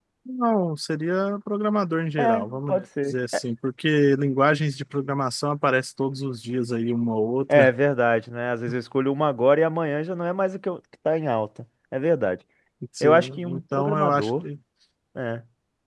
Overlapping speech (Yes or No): Yes